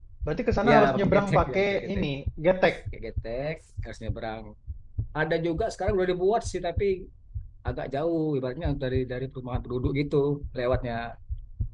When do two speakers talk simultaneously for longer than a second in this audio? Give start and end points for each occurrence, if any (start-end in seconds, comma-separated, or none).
0.7-2.0